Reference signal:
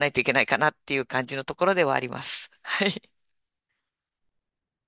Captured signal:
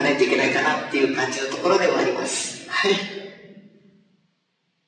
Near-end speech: none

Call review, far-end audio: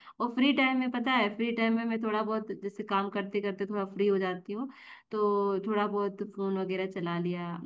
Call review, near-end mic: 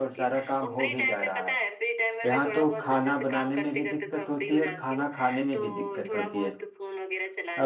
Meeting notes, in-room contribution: present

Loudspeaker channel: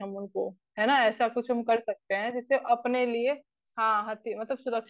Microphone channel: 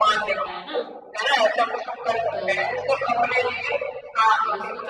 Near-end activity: present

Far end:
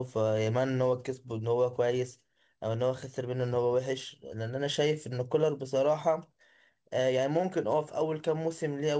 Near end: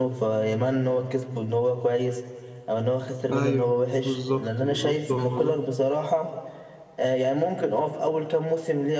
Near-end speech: present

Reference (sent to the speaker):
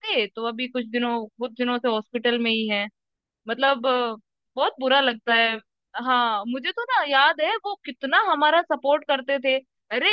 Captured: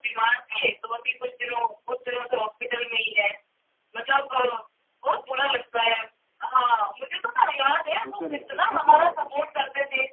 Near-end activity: present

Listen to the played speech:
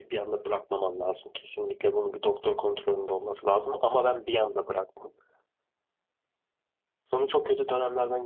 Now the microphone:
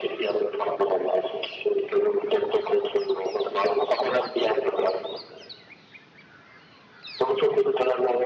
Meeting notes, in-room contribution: none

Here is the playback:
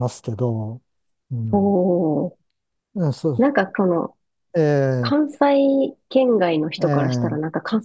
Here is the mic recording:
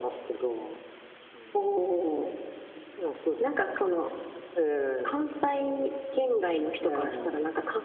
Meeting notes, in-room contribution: none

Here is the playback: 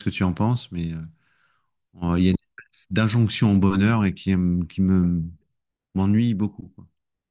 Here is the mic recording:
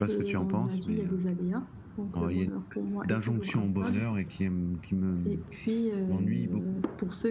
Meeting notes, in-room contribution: present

